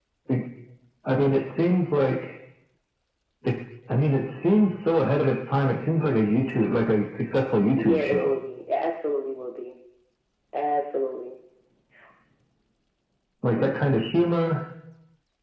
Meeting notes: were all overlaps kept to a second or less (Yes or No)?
Yes